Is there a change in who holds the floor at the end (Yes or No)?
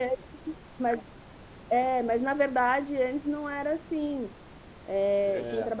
No